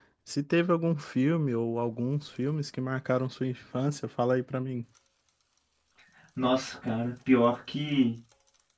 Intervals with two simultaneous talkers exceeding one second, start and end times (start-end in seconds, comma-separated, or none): none